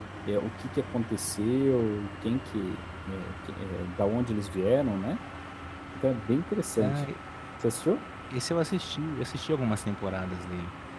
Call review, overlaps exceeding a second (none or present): none